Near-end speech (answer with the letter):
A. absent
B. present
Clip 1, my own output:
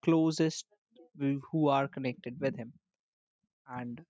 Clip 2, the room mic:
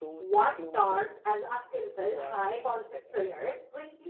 B